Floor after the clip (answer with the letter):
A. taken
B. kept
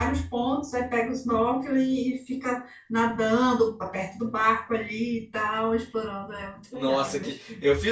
A